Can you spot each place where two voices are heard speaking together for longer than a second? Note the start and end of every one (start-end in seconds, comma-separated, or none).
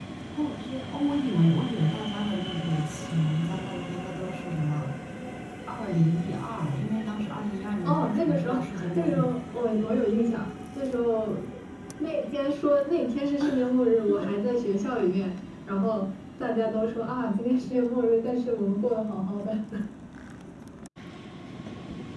7.8-9.2